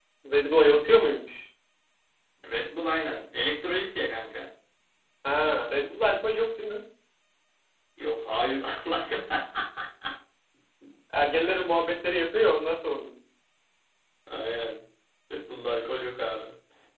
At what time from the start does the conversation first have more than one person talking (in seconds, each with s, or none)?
none